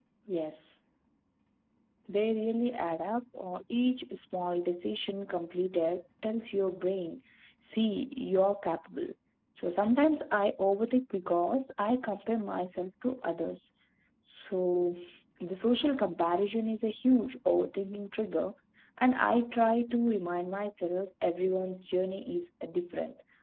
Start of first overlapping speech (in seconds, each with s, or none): none